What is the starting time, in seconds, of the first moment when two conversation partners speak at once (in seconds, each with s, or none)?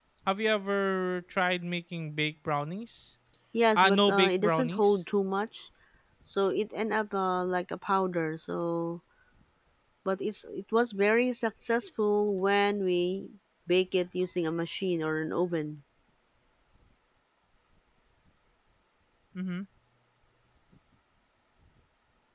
3.8 s